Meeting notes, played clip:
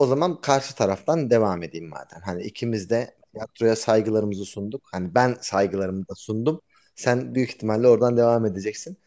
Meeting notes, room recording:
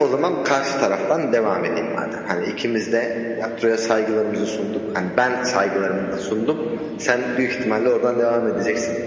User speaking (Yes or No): No